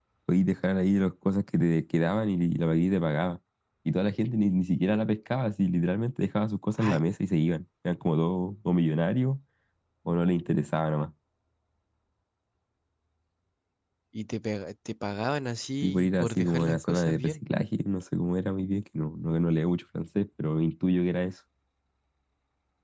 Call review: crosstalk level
present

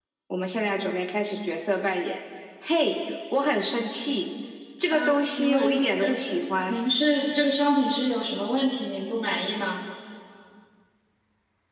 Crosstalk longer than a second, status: present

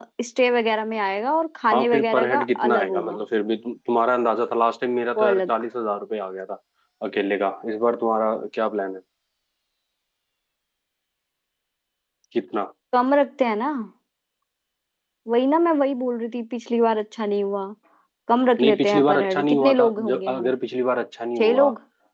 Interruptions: present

